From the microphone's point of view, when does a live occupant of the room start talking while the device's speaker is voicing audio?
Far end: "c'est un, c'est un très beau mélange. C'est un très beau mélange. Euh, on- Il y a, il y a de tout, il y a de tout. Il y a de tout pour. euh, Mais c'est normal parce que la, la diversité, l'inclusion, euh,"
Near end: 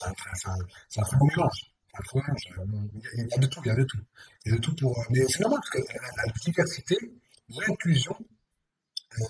none

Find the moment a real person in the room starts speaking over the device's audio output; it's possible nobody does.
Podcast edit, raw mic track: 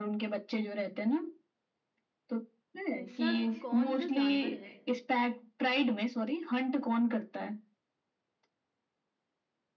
2.9 s

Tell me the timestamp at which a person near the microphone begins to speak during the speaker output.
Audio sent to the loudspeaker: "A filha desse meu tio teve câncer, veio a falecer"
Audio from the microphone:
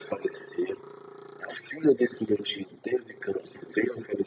none

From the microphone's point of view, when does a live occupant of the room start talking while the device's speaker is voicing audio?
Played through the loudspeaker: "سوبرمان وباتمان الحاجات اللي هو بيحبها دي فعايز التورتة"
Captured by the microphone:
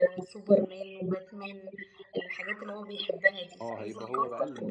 3.6 s

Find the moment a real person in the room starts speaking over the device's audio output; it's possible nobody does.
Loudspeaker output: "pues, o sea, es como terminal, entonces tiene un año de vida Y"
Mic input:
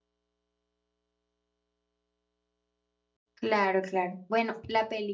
3.3 s

